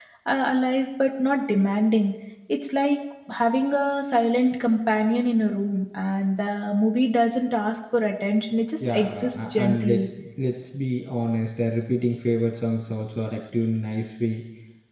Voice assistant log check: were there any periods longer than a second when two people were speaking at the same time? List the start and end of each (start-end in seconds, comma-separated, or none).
8.8-10.0